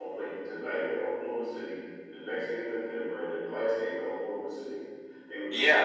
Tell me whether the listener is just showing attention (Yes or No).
No